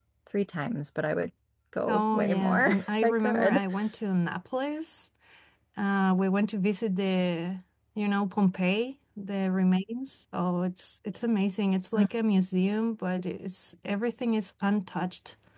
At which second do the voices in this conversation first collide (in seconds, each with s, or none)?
1.9 s